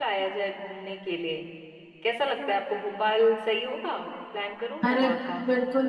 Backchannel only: No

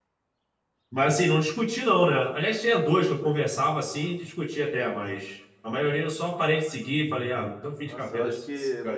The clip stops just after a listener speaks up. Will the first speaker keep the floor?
No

